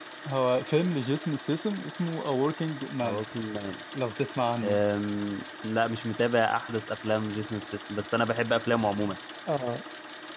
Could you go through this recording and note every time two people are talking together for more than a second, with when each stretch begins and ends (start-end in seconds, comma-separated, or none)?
none